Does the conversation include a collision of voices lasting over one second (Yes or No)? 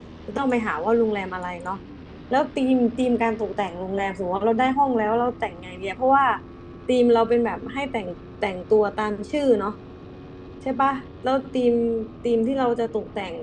No